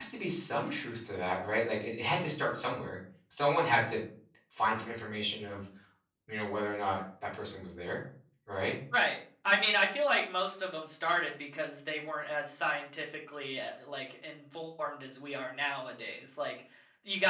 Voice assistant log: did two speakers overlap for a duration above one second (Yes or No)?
No